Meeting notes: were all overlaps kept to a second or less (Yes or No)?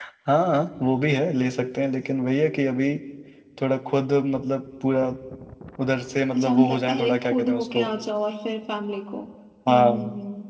No